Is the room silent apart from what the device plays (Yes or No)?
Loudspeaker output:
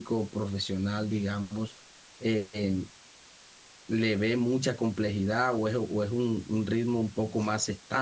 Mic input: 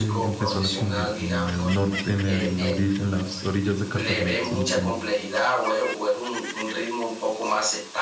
No